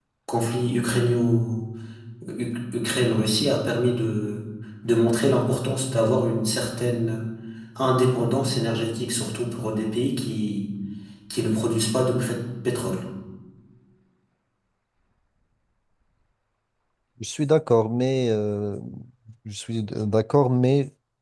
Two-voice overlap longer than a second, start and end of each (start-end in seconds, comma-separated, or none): none